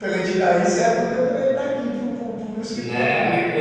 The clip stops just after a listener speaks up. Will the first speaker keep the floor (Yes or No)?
No